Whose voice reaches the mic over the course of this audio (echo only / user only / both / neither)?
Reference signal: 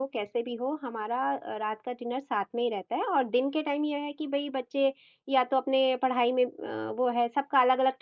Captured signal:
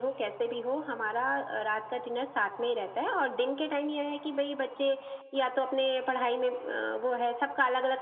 echo only